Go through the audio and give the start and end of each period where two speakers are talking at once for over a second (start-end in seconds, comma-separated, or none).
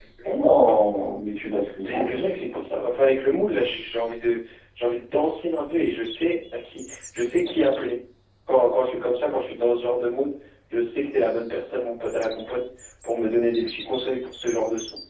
none